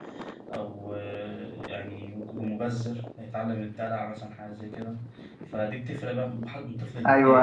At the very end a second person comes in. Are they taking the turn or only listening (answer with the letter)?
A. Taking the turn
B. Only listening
A